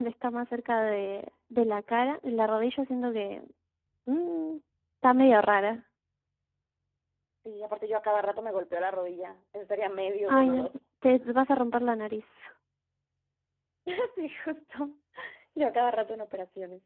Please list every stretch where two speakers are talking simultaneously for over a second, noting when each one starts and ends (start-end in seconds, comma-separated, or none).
none